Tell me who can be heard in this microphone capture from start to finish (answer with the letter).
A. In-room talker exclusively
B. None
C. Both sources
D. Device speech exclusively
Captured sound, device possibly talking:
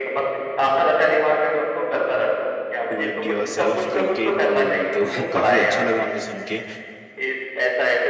C